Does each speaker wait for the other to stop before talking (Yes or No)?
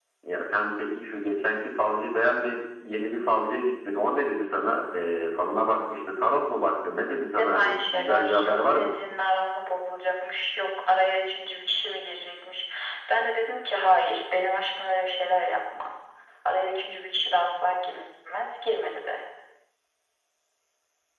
No